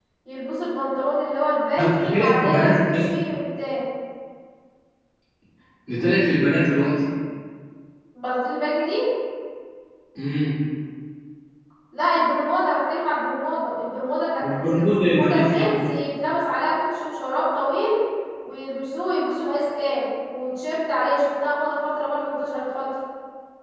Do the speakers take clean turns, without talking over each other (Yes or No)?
No